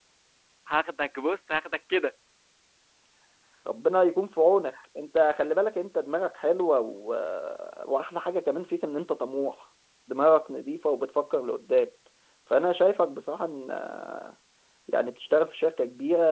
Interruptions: none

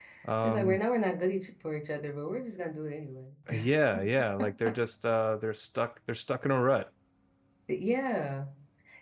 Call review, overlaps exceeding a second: none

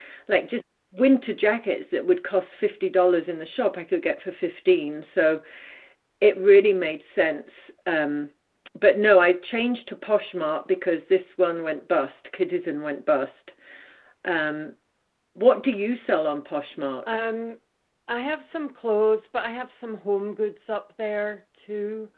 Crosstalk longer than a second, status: none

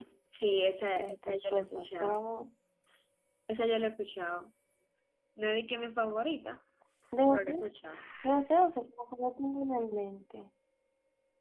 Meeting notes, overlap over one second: present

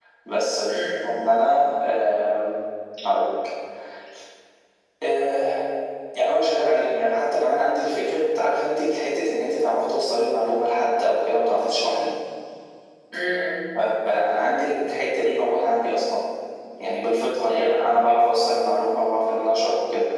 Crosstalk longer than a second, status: none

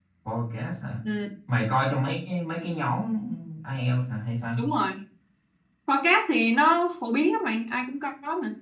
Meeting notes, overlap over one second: none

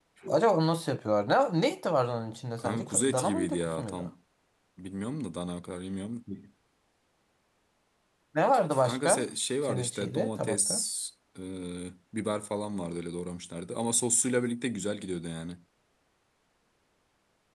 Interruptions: present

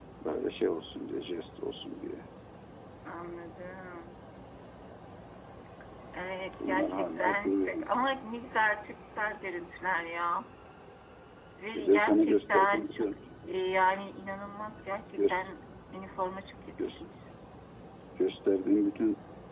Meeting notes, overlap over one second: present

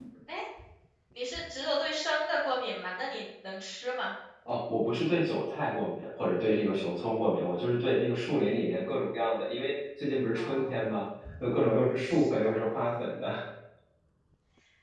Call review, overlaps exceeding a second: none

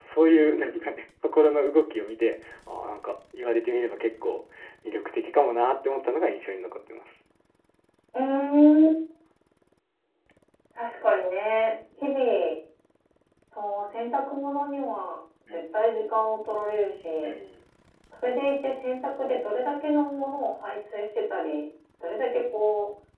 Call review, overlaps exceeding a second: none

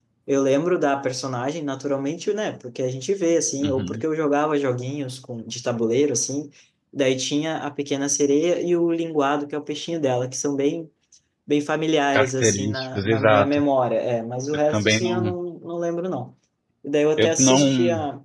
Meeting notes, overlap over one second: present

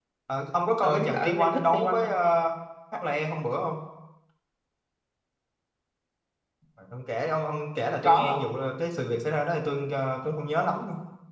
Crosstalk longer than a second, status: present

